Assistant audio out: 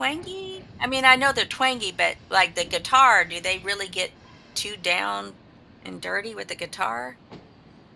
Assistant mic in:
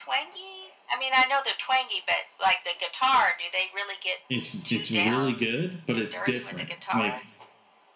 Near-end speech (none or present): present